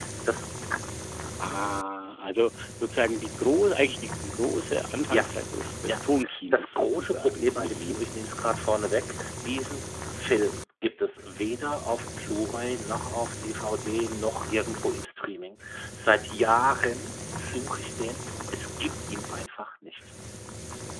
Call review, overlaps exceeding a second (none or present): present